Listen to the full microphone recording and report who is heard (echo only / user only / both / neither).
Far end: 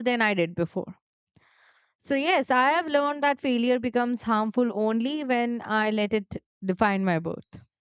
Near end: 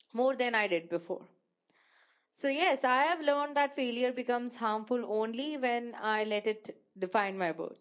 echo only